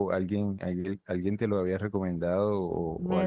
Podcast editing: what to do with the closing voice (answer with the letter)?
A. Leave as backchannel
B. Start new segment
B